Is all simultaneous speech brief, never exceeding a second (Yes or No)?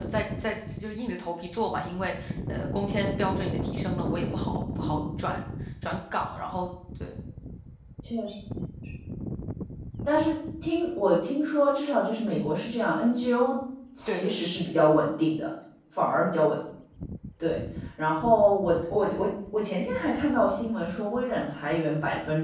Yes